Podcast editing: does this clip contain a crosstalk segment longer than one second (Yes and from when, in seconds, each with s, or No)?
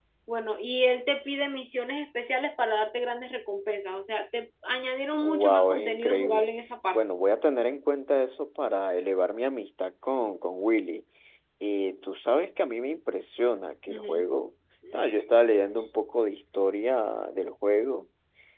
Yes, from 5.2 s